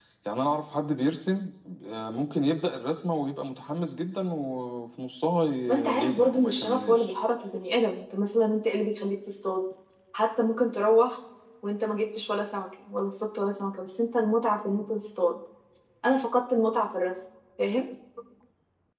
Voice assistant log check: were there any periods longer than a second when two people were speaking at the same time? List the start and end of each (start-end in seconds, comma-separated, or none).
5.7-7.1